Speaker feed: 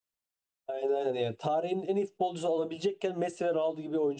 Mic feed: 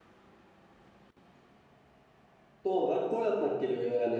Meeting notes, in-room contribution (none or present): present